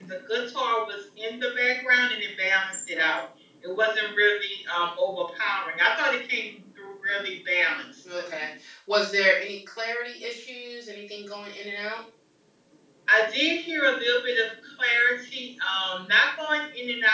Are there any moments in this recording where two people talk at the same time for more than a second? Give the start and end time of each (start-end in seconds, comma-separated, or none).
none